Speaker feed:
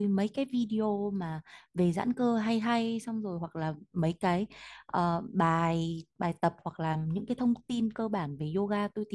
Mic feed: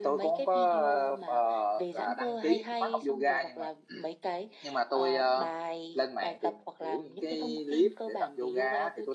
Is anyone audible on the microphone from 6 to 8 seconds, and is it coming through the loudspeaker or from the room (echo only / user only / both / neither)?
both